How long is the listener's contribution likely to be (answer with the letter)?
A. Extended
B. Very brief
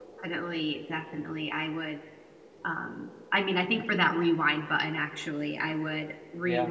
B